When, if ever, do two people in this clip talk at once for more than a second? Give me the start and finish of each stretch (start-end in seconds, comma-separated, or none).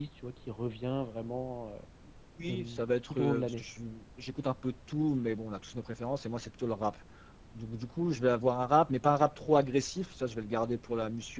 2.4-3.6